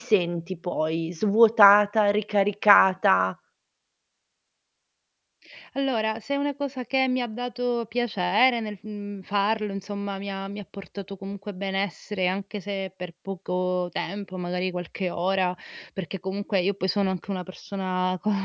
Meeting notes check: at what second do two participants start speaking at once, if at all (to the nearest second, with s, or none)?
none